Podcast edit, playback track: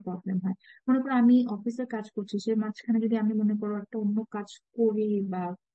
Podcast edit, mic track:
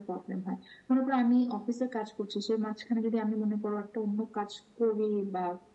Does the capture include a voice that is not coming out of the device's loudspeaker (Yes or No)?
No